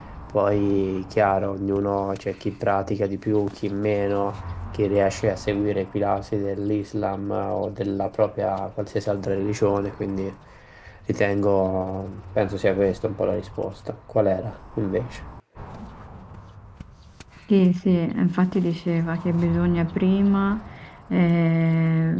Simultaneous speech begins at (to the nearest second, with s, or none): none